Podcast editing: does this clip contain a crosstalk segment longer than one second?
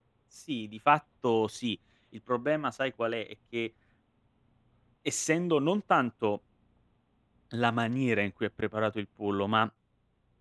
No

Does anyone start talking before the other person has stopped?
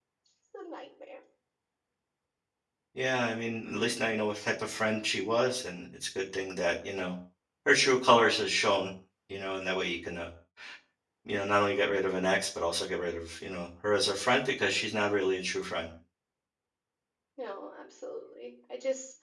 No

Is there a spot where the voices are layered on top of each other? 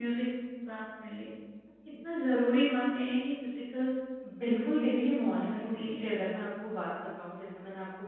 Yes, from 4.5 s

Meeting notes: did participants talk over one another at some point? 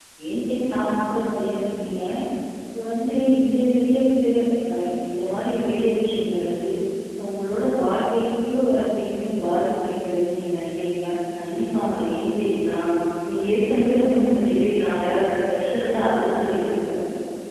No

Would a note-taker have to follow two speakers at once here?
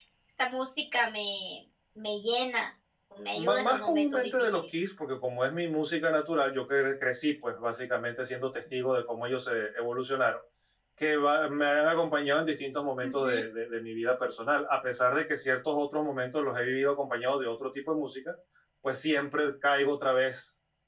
Yes, from 3.3 s

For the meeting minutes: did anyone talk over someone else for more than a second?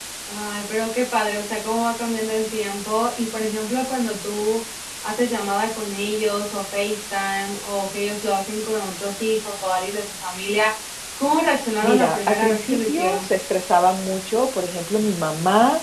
Yes, from 11.8 s

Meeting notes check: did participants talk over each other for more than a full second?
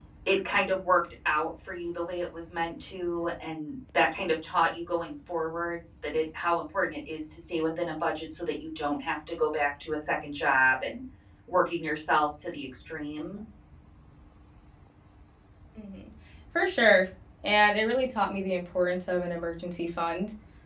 No

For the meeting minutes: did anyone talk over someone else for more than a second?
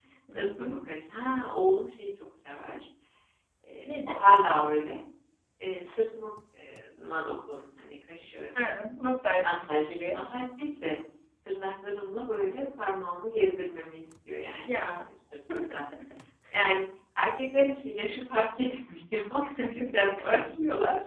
No

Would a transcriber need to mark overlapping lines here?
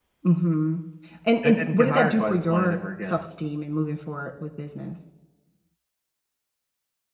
Yes, from 1.4 s

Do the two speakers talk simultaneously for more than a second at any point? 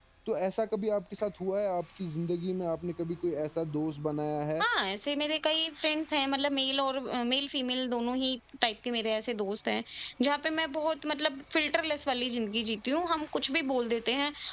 No

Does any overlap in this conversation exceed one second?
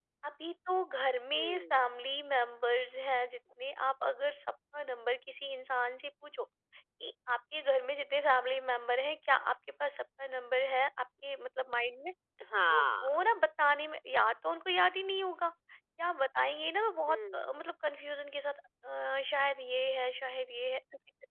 No

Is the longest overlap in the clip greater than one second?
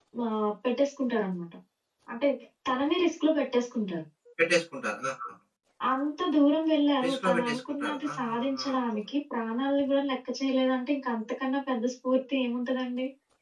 Yes, from 7.0 s

